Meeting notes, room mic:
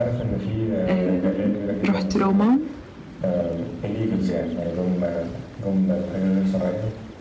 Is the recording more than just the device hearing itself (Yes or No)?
Yes